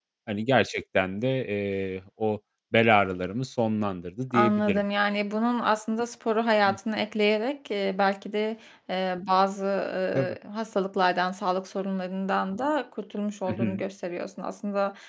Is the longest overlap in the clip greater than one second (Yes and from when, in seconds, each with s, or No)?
No